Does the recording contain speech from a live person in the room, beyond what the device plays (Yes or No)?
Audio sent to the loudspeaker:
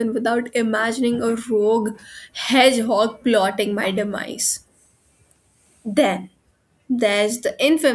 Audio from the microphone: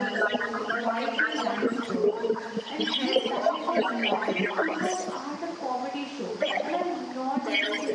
Yes